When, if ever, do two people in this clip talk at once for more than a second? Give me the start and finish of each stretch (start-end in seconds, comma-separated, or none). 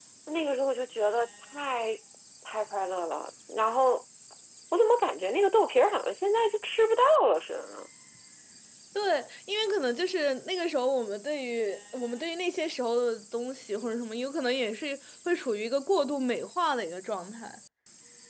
none